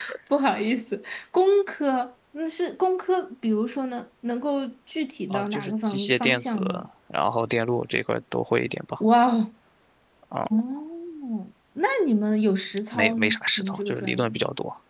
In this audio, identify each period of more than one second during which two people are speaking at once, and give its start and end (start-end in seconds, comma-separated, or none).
5.3-6.6, 12.9-14.3